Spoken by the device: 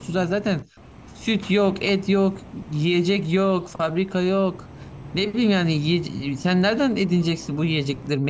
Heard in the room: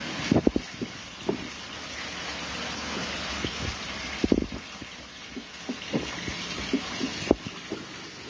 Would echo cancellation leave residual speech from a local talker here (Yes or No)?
No